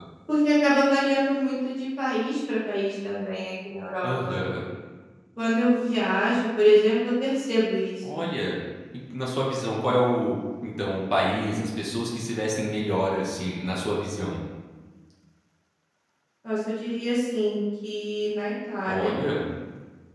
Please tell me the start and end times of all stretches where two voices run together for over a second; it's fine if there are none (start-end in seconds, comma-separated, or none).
none